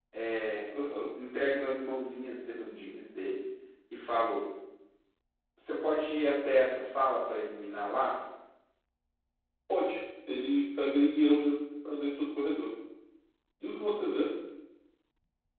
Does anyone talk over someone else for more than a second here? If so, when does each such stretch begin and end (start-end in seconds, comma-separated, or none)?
none